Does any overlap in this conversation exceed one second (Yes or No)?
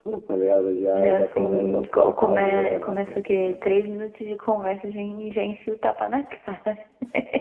Yes